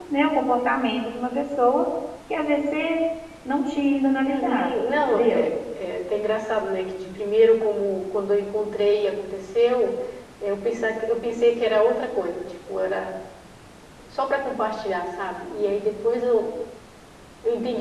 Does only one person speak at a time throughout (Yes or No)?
No